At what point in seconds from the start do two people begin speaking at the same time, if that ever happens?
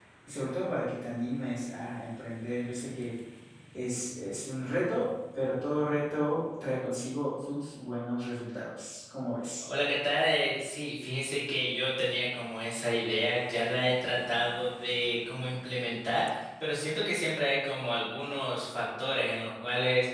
none

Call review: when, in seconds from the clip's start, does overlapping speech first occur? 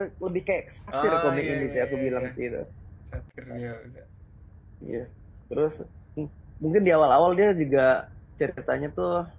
1.0 s

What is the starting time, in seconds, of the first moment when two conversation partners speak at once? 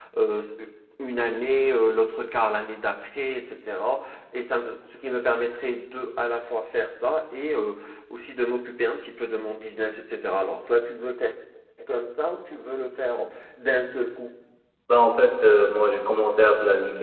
none

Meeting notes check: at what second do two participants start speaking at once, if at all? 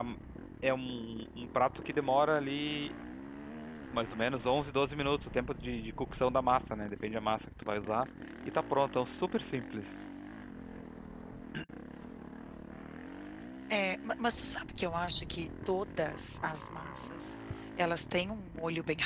none

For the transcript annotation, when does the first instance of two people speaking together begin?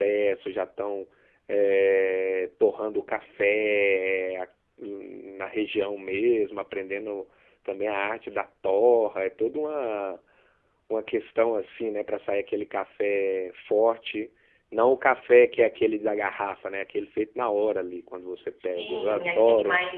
18.5 s

